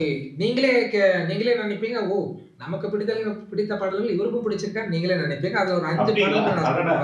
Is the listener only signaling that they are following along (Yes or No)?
No